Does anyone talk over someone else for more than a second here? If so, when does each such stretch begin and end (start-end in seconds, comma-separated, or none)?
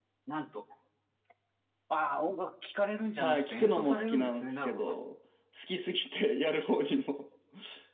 3.2-5.0